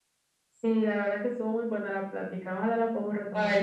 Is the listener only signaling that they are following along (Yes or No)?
No